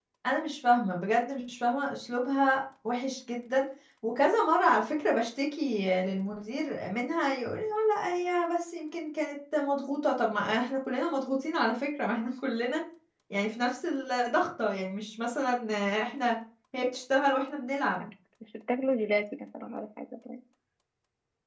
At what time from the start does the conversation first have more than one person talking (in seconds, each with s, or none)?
none